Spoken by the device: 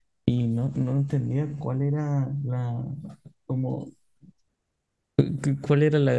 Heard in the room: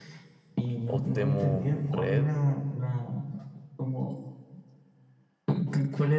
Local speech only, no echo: Outemu Red.

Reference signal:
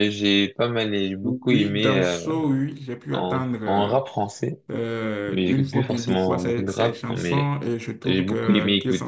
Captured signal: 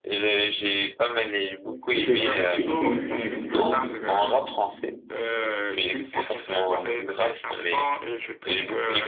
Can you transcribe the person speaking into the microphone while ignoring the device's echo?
de ces artistes que tu aimes tant écouter?

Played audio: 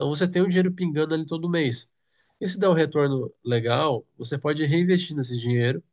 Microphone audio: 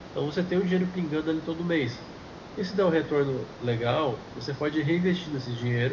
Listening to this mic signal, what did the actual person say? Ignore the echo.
none

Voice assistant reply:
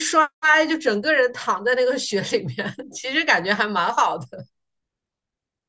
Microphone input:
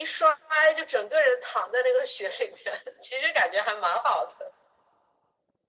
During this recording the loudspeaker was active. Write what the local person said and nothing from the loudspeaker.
none

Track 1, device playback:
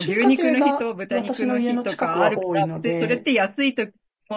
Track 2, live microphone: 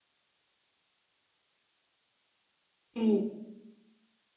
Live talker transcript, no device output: えー、

